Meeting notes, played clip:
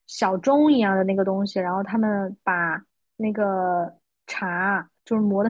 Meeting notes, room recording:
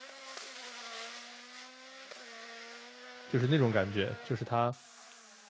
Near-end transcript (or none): 就是那种感觉，就是它